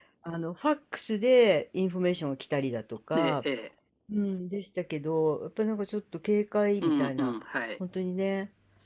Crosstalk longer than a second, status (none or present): none